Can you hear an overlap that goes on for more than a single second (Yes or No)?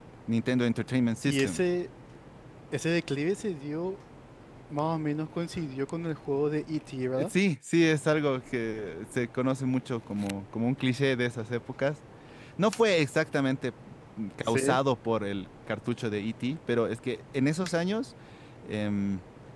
No